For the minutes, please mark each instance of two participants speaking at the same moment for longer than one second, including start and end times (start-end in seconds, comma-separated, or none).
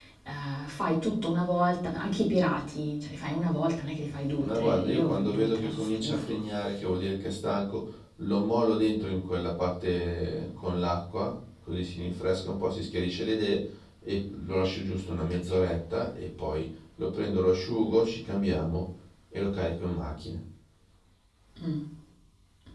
4.4-6.4